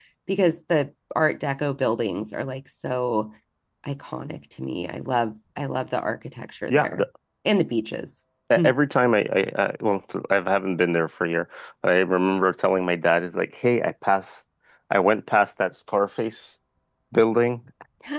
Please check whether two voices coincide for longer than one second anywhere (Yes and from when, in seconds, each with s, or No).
No